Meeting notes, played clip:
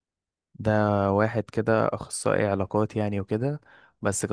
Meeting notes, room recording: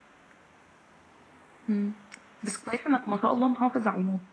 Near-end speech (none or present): present